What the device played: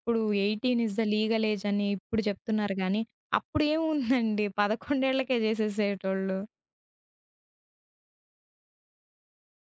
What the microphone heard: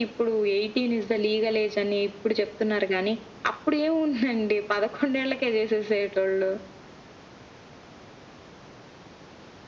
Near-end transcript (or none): none